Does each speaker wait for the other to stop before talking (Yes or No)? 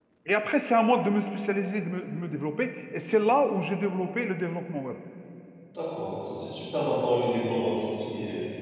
Yes